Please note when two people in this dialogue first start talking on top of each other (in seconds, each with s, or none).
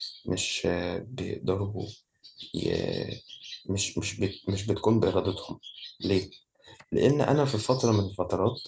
none